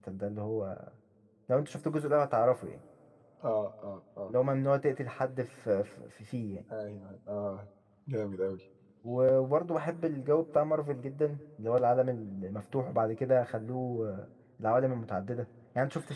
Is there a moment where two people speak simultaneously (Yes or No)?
No